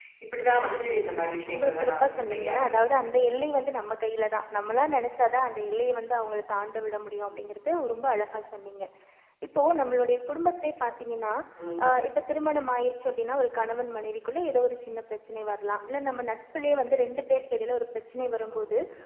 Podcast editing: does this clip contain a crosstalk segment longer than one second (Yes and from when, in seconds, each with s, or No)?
Yes, from 1.5 s